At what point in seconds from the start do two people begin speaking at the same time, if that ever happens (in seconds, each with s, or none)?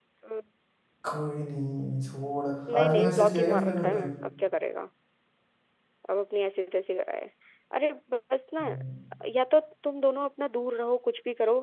2.7 s